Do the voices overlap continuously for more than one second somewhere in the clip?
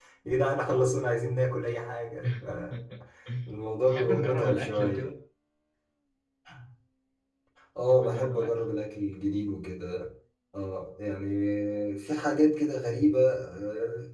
Yes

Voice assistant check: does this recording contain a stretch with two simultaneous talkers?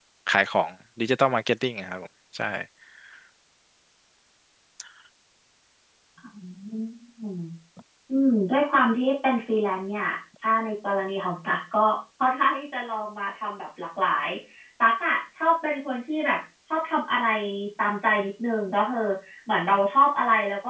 No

